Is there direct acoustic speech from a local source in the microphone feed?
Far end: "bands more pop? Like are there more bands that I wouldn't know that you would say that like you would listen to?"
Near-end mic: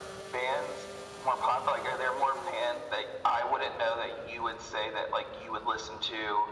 No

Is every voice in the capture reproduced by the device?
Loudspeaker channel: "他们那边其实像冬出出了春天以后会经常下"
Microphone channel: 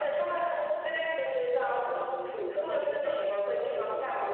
No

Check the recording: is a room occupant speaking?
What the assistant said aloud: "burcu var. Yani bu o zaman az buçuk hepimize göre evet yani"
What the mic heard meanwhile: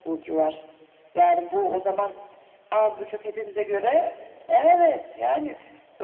No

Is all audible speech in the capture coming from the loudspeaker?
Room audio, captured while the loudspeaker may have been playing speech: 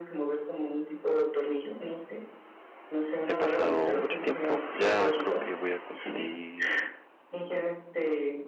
No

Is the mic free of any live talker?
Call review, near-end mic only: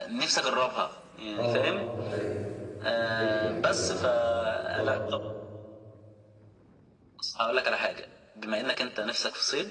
No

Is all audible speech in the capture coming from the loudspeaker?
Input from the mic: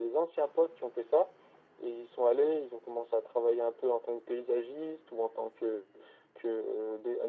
Yes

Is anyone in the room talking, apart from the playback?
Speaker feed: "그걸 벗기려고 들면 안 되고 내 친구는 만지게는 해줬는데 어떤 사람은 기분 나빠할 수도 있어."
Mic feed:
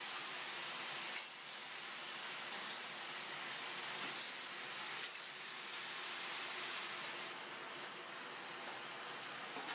No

